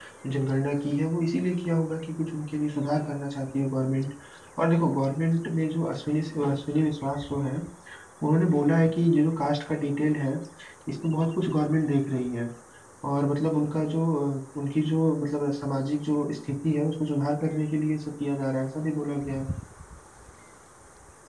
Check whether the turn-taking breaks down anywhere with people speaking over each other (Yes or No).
No